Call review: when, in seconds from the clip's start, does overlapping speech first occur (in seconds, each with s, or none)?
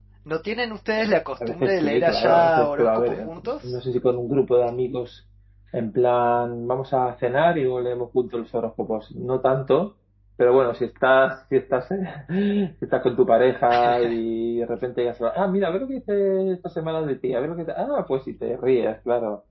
1.5 s